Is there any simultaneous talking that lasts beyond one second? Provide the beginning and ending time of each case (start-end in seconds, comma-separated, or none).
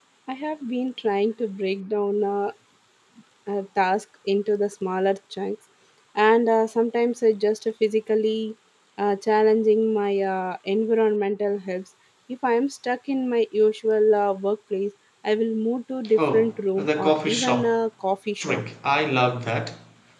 16.2-17.8